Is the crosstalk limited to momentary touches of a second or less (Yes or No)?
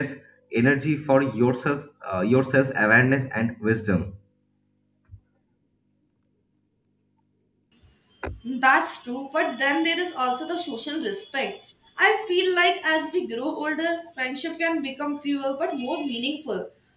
Yes